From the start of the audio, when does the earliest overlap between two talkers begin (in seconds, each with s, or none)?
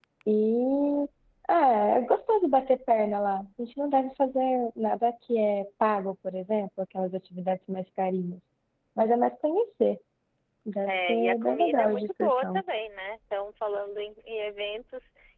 10.9 s